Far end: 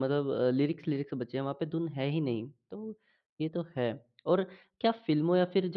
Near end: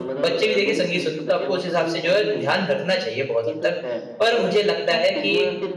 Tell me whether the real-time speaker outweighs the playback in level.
Yes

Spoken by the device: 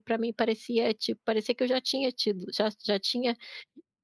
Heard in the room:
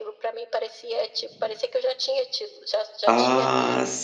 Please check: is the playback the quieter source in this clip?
Yes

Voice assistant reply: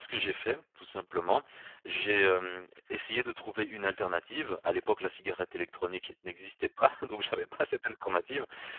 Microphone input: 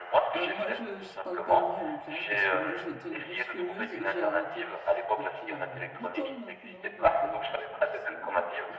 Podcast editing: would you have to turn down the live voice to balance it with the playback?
No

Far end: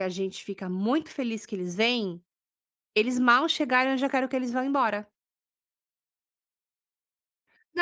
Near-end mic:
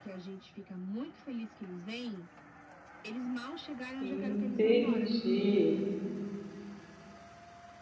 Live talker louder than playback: Yes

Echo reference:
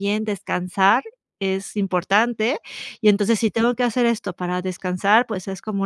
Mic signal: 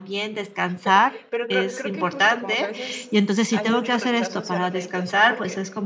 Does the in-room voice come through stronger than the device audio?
No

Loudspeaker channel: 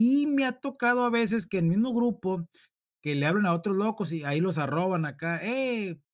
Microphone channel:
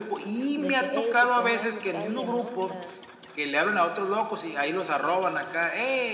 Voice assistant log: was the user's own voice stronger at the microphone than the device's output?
No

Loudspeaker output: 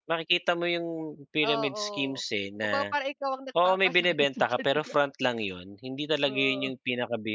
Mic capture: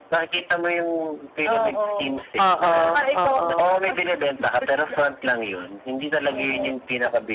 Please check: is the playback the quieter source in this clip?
Yes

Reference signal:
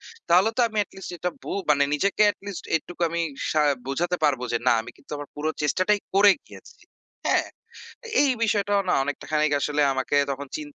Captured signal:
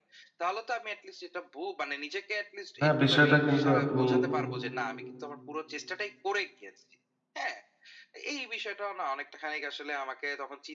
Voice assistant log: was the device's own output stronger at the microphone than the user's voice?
No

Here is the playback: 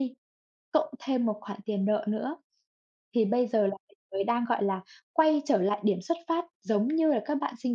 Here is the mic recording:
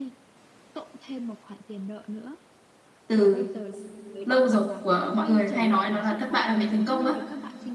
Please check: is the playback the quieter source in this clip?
Yes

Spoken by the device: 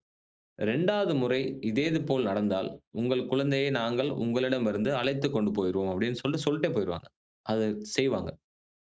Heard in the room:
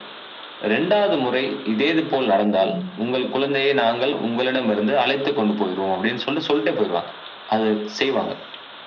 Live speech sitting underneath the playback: Yes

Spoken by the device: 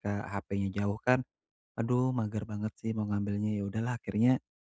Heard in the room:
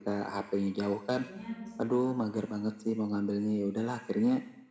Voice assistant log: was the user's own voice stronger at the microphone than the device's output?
No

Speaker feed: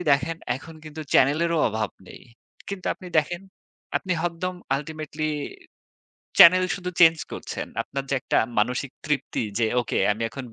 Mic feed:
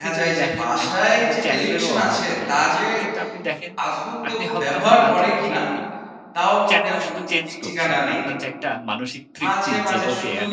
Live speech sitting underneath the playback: No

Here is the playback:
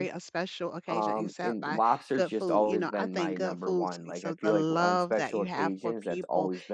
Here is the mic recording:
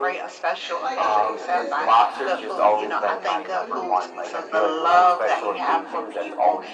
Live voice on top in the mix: No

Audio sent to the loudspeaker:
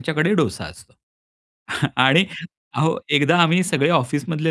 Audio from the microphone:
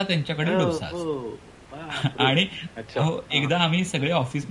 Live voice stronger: No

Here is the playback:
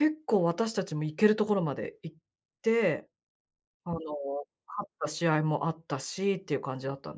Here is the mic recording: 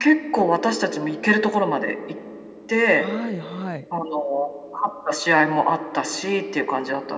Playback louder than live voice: Yes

